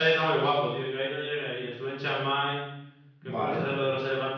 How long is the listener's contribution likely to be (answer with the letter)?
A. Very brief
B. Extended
A